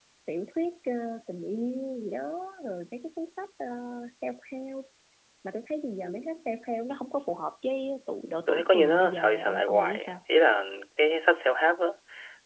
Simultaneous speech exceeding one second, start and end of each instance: 8.5-10.2

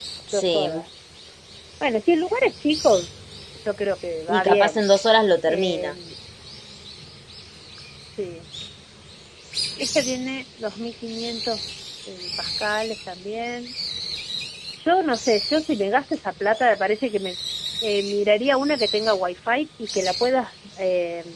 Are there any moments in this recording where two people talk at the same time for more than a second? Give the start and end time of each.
none

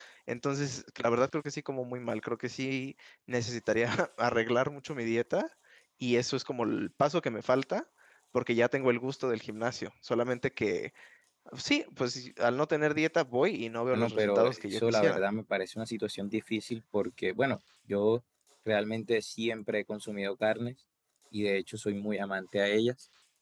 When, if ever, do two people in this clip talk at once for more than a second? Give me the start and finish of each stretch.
13.9-15.2

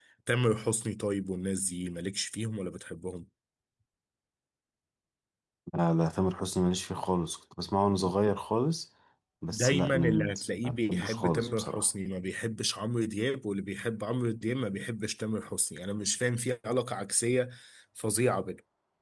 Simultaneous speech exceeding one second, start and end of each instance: 9.5-11.8

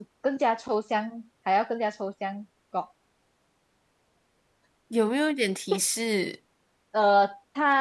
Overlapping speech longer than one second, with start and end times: none

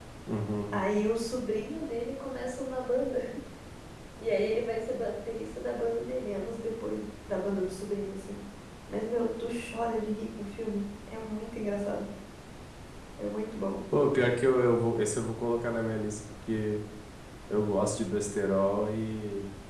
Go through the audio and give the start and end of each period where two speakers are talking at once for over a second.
none

